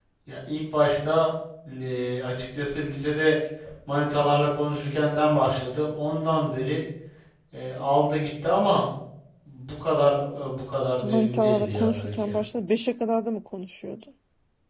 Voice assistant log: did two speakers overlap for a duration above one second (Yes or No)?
Yes